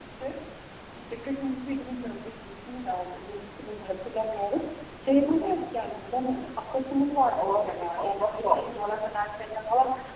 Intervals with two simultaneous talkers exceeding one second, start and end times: 7.4-8.9

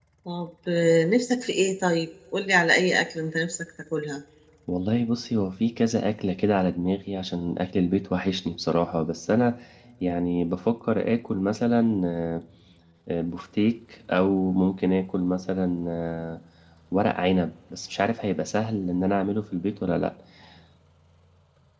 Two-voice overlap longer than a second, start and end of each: none

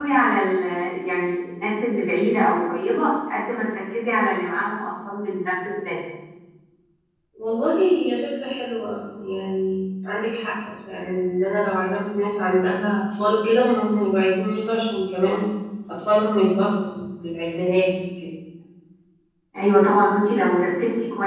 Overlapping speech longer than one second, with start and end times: none

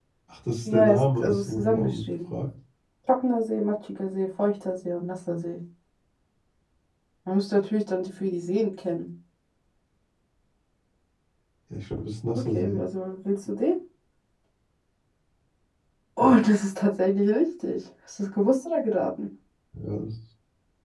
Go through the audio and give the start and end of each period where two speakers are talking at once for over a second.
0.6-2.0

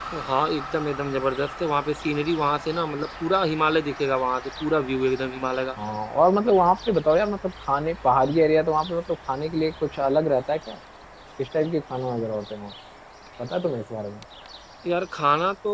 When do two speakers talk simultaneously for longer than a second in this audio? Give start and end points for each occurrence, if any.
none

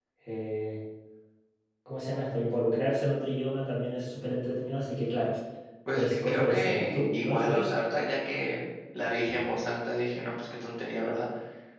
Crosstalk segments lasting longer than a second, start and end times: 6.0-7.7

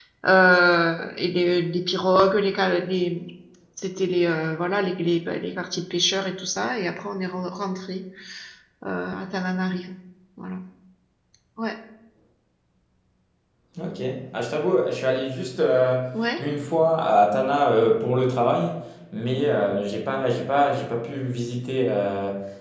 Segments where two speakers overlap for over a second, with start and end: none

